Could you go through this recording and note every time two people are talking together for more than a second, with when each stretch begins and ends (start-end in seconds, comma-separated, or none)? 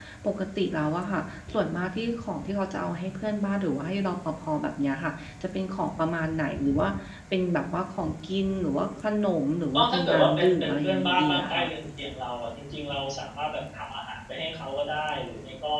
9.7-11.7